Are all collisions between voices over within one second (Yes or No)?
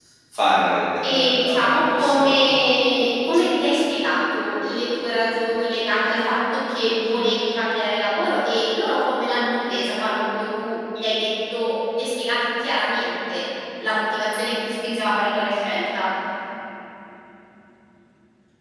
No